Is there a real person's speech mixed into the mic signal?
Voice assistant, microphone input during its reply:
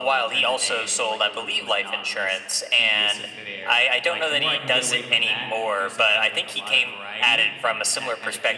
Yes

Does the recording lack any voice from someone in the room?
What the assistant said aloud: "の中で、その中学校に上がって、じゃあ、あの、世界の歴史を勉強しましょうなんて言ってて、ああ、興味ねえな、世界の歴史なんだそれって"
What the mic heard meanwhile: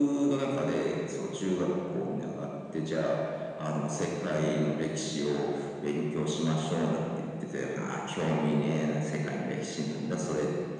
Yes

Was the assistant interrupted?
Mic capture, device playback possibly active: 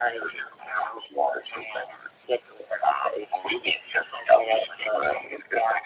No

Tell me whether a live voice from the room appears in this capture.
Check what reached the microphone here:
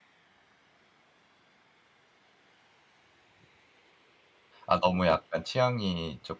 Yes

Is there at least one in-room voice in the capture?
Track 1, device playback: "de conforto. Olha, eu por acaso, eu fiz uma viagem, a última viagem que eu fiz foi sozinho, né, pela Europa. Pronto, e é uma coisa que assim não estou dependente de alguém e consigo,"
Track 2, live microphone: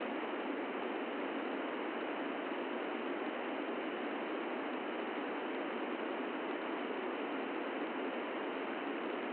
No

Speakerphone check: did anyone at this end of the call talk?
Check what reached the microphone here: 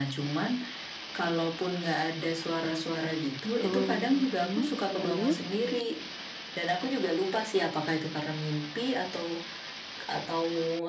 Yes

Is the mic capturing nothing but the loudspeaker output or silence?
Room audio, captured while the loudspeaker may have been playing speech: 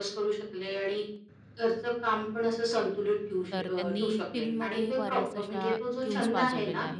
No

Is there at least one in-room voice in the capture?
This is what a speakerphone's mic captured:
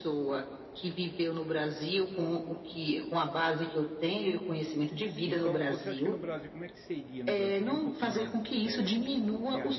Yes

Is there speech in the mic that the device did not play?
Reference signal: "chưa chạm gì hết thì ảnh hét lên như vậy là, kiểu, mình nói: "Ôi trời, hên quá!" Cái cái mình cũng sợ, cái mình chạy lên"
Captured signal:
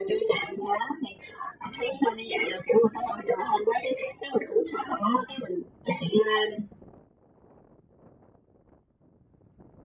No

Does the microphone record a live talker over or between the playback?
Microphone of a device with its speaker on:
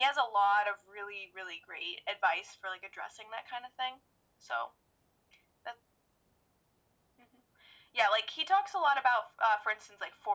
No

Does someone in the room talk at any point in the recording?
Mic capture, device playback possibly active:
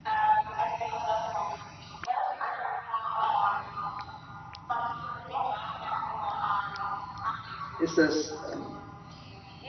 Yes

